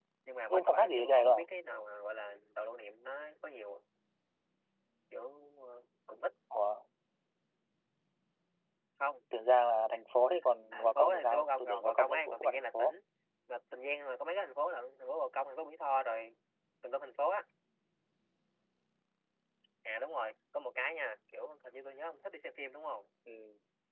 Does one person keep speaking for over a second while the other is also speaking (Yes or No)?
Yes